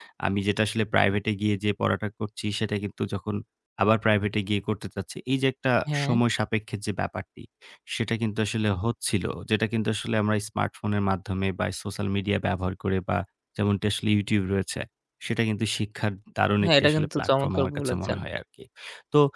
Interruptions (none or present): present